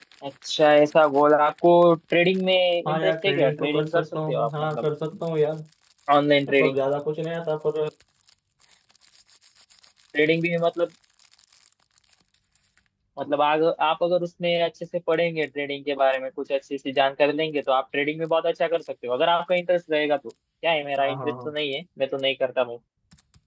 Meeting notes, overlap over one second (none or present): present